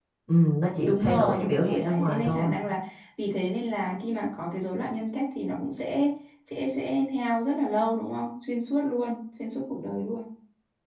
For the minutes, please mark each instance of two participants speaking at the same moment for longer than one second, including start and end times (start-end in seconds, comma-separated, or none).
0.8-2.5